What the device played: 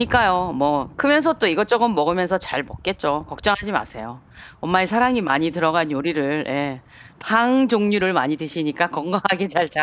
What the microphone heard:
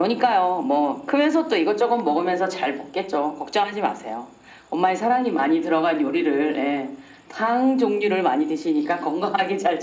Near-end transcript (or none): none